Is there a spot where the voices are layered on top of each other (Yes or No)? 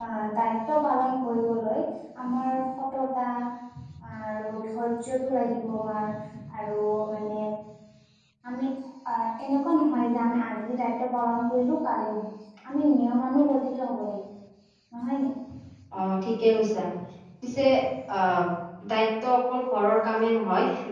No